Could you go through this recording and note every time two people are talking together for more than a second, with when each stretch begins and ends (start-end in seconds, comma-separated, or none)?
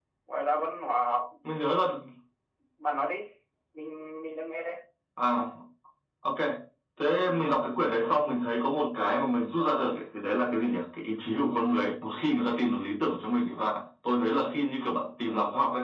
none